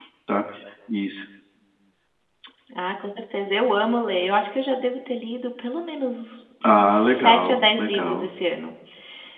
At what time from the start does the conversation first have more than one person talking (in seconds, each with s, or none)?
6.8 s